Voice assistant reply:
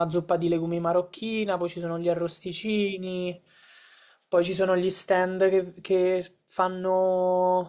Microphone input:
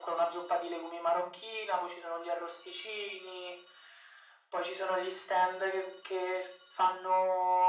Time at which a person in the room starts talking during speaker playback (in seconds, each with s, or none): none